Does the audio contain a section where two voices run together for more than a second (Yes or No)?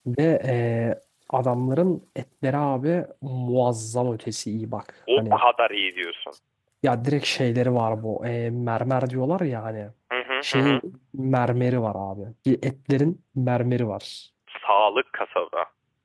No